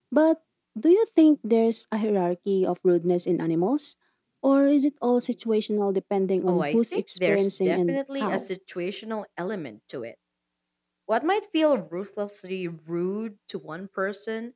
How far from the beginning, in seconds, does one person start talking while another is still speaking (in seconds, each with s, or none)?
6.5 s